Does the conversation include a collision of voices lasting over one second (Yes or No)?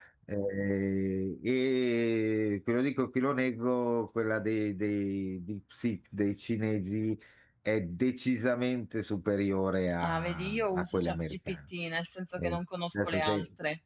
Yes